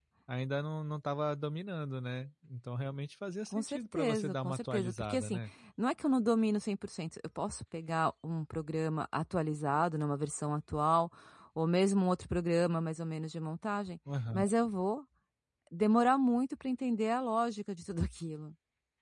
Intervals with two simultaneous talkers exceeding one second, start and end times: 3.5-5.4

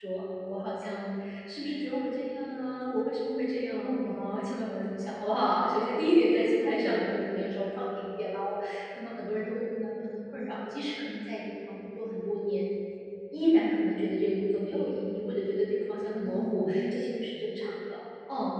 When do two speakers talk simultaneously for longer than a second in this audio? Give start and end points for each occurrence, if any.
none

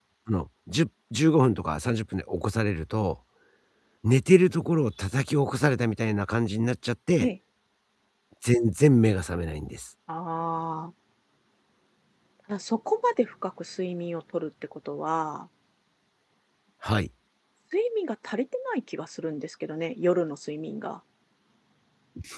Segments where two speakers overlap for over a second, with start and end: none

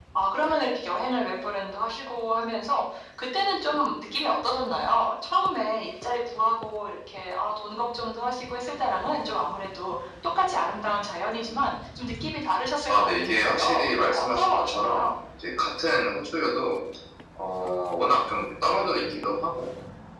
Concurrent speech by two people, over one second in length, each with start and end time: 12.9-15.1

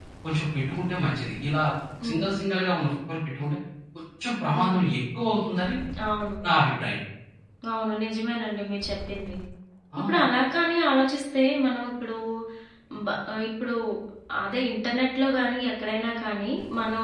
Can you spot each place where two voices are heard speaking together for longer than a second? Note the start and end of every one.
none

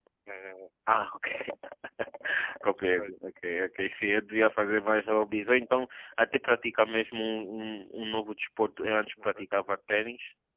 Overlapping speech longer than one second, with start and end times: none

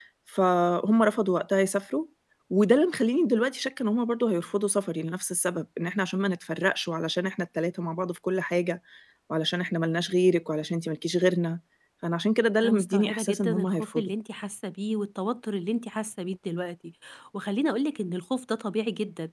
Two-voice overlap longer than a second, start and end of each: 12.6-14.1

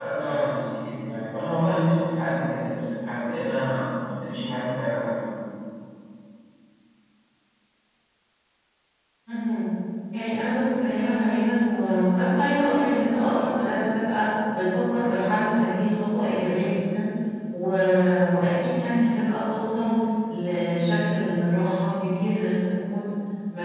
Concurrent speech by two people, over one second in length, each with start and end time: none

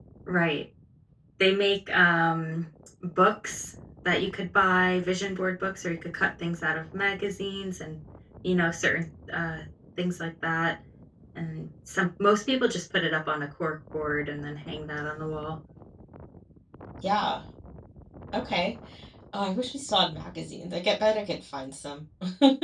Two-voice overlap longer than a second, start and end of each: none

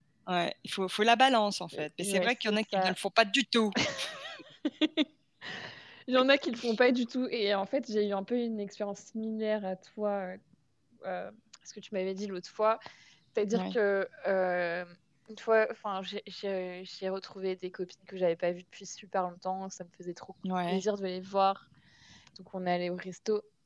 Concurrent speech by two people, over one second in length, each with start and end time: 1.7-2.9

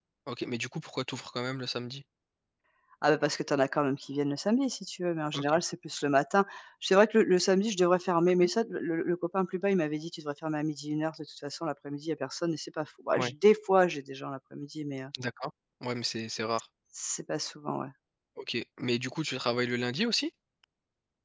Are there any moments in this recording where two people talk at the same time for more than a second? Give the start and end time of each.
none

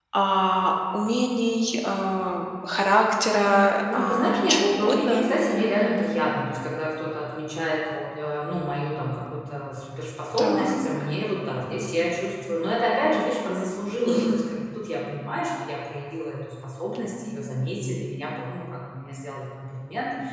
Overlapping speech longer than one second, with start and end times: 3.4-5.2

